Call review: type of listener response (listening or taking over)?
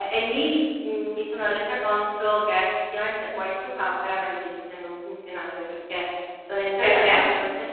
listening